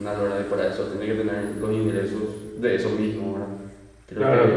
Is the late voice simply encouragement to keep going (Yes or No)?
Yes